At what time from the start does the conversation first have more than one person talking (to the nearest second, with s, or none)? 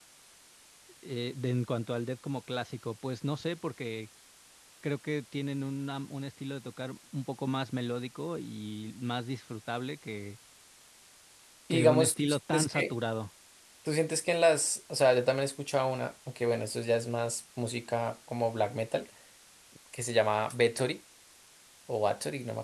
12 s